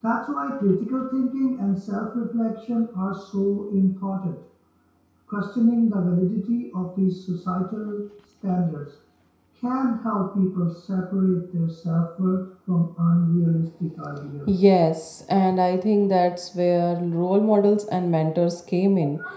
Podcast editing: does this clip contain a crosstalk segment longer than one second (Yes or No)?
No